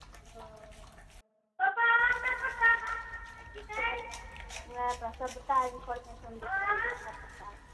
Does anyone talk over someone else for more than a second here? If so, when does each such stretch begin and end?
none

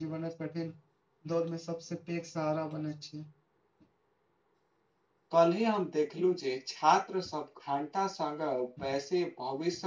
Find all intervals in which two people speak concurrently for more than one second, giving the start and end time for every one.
none

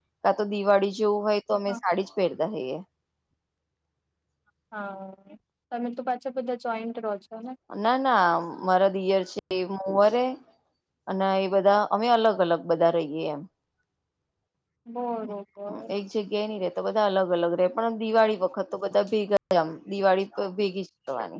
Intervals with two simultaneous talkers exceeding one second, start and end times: none

